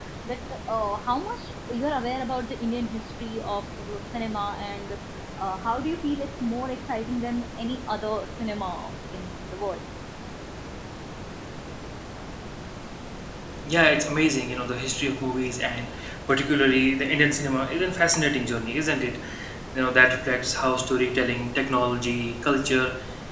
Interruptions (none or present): none